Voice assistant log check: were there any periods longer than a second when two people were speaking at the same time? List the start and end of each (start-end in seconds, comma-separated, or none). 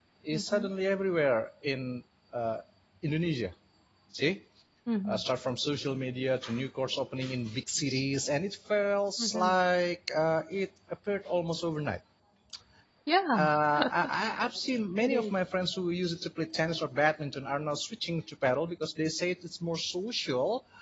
none